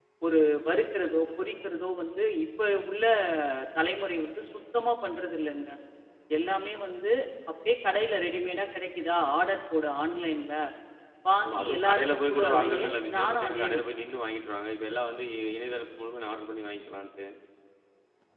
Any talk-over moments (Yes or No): Yes